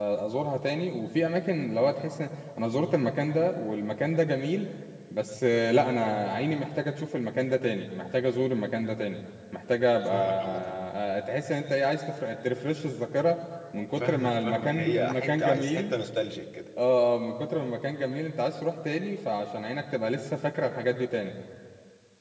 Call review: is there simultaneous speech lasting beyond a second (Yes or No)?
Yes